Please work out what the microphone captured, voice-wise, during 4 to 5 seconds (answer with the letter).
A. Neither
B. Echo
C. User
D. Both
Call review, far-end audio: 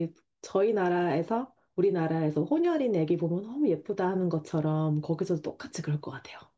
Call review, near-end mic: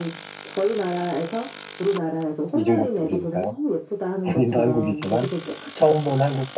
D